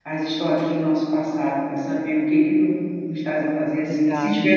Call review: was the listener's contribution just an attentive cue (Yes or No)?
Yes